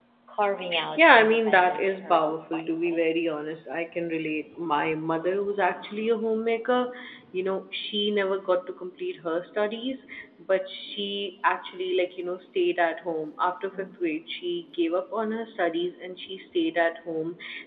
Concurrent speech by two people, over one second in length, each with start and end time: 1.0-3.0

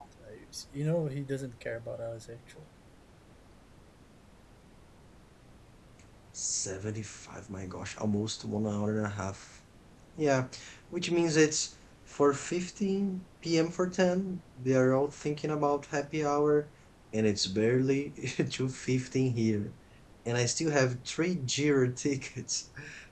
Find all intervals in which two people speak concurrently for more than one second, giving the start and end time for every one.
none

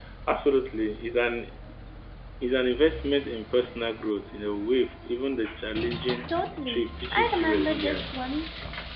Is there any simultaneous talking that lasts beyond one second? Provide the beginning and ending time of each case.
6.7-8.1

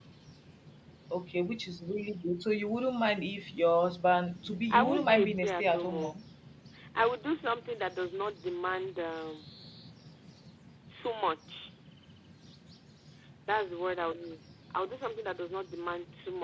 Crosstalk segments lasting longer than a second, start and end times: 4.7-6.2

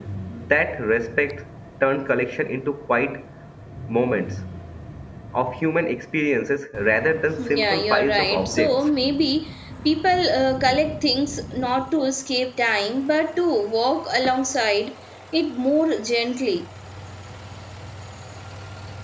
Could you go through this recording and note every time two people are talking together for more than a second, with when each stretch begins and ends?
7.4-8.8

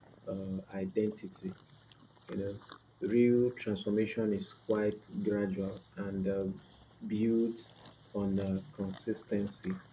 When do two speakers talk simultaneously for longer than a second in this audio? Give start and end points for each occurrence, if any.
none

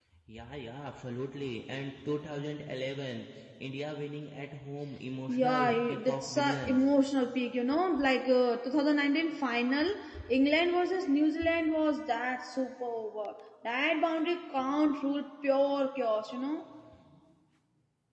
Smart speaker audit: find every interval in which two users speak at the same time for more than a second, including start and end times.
5.3-6.8

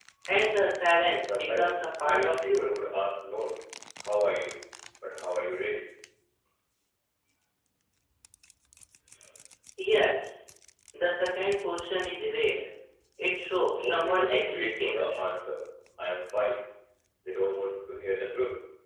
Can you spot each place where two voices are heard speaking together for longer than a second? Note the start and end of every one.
1.2-2.7, 13.8-15.2

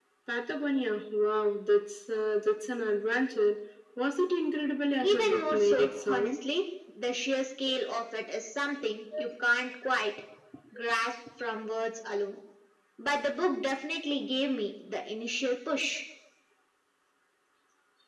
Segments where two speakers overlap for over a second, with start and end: 5.0-6.3

